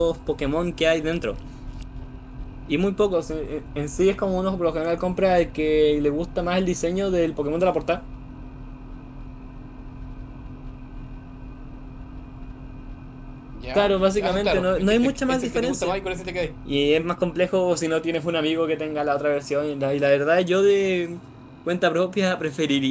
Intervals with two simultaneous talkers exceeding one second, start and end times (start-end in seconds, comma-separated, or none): 13.8-15.9